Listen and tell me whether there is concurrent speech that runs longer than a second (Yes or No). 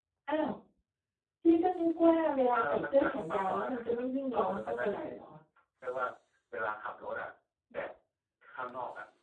Yes